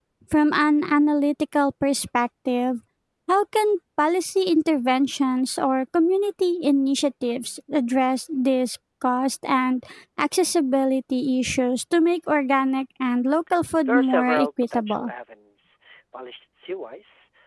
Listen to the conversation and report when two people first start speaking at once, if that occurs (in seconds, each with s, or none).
13.9 s